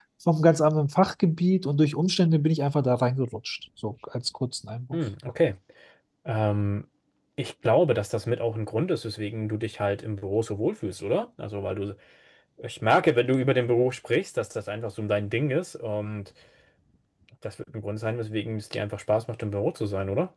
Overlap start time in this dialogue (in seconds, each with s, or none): none